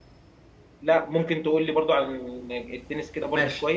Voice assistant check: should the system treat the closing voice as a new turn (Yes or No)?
Yes